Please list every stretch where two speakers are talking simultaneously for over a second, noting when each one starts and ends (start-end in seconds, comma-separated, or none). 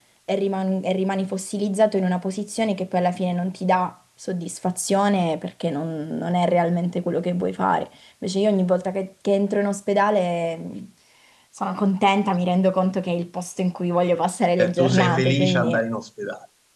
14.6-15.8